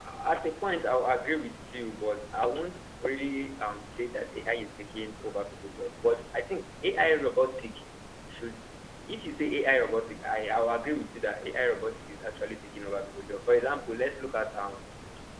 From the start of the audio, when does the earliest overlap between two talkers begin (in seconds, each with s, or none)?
none